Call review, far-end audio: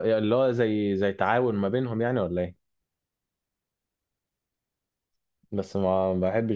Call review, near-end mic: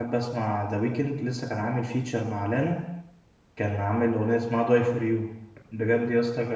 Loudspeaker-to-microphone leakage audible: No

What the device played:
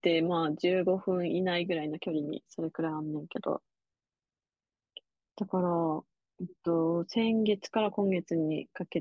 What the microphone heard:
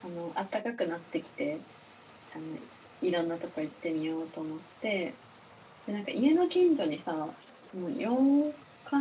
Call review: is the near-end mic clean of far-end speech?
Yes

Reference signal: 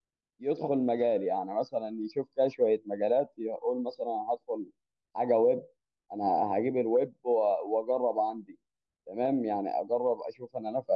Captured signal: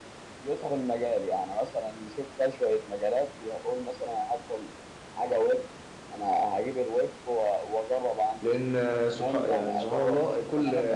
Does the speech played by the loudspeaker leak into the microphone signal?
Yes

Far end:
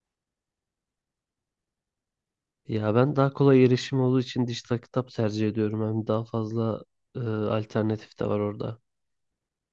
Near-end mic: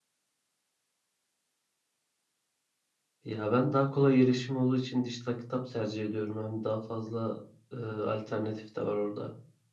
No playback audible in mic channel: No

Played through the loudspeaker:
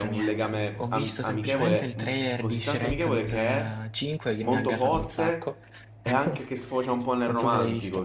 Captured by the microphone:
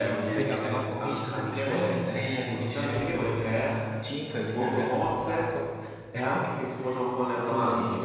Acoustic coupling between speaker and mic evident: Yes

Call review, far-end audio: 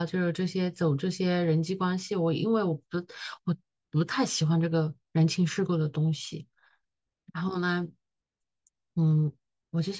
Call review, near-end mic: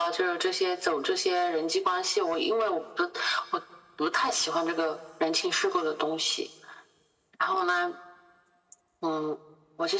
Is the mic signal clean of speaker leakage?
No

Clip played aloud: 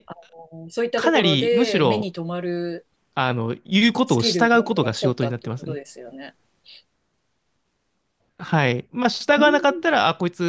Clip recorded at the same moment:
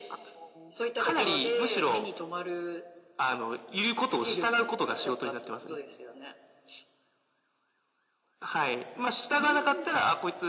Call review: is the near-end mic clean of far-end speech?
No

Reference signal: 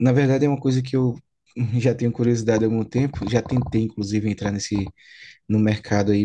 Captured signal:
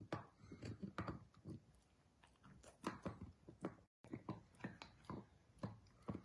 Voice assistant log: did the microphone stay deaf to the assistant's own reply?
Yes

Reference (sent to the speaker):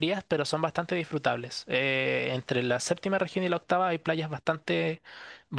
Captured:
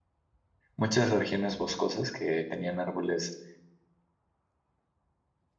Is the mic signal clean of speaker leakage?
Yes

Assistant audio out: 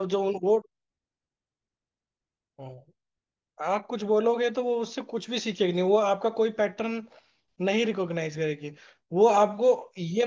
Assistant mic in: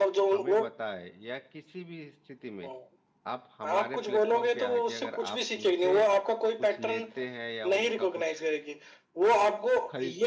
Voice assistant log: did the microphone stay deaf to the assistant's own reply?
No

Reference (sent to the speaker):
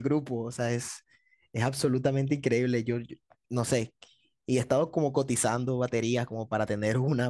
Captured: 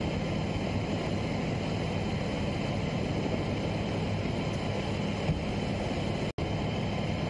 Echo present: No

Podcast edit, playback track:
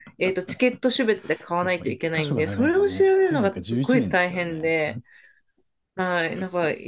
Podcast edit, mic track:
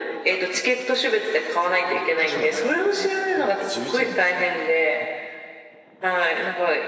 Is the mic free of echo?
No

